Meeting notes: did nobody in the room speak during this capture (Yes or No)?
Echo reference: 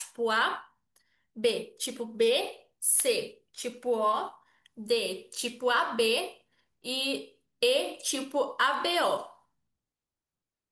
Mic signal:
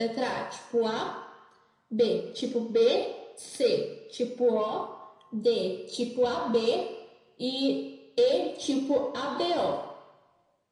Yes